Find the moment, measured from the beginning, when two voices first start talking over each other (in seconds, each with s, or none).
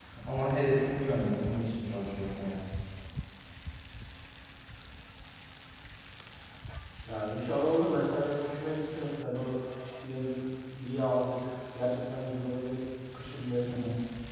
none